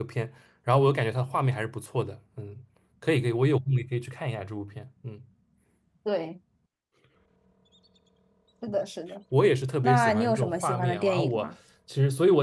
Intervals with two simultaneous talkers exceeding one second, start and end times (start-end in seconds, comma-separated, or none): 9.8-11.5